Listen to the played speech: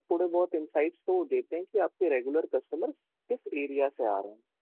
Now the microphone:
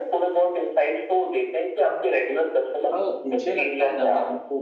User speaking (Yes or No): Yes